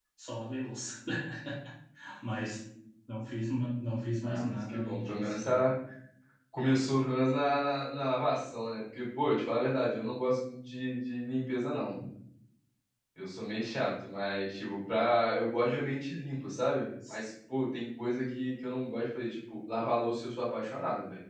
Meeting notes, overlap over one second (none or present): present